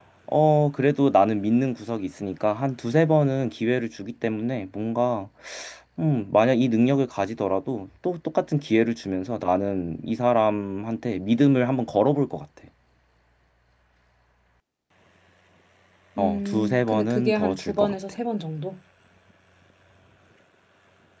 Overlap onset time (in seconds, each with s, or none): 16.2 s